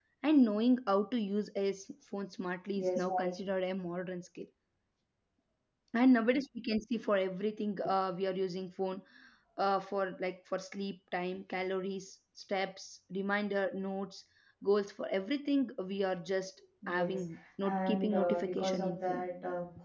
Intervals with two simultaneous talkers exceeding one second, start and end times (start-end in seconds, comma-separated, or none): 17.6-19.3